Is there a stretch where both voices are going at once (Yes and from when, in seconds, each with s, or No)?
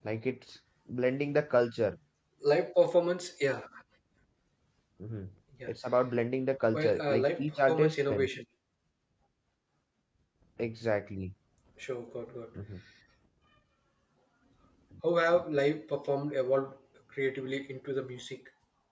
Yes, from 6.7 s